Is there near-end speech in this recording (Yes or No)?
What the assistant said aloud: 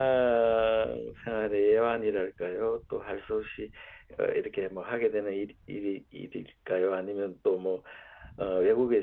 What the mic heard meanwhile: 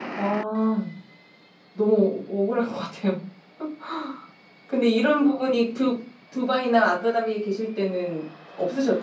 Yes